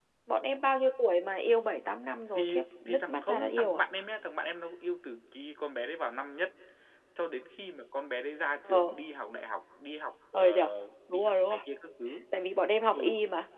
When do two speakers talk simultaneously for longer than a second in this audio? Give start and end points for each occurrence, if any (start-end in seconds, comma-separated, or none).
2.4-3.8